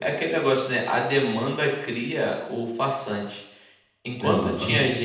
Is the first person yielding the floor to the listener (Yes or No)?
No